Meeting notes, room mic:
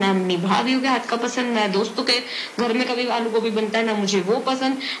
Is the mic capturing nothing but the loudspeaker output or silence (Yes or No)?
Yes